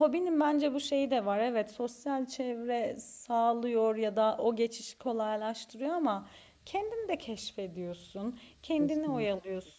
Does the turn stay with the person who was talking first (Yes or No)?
Yes